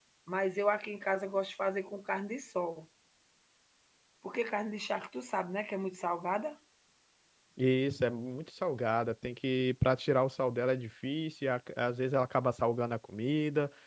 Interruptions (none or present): none